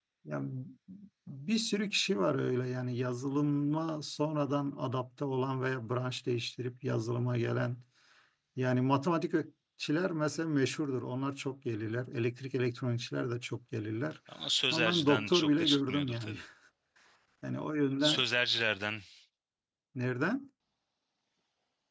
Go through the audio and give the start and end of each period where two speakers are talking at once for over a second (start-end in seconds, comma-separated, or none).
14.7-16.4